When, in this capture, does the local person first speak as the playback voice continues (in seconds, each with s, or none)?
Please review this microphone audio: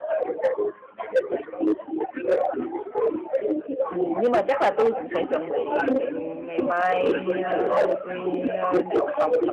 3.9 s